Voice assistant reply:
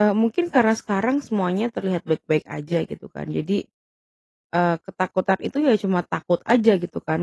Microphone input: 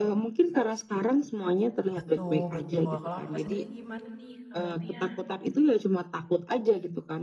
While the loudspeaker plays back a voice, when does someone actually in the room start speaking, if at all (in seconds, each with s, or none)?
1.9 s